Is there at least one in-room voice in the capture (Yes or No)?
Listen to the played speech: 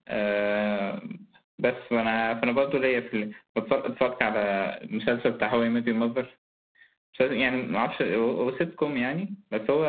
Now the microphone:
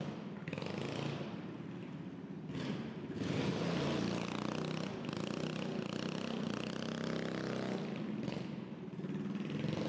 No